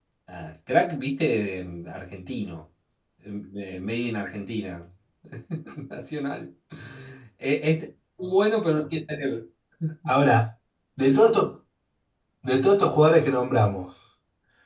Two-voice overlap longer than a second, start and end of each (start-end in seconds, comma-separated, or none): none